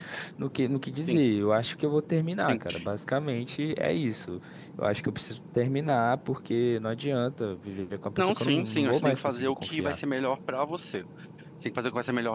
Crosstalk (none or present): present